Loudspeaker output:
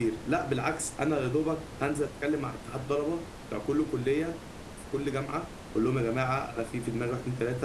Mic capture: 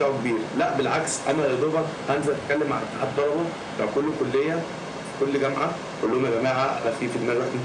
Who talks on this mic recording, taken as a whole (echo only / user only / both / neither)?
echo only